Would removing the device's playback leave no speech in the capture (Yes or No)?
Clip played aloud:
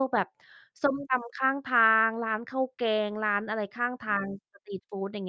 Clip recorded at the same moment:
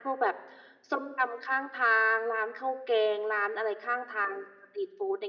Yes